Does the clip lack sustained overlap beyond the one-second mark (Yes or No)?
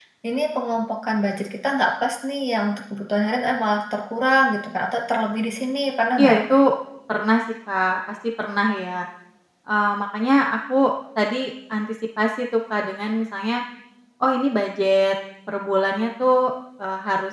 Yes